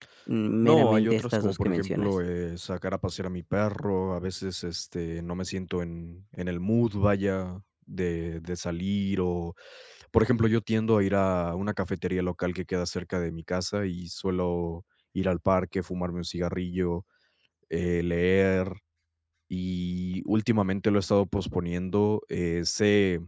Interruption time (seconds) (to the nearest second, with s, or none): 1 s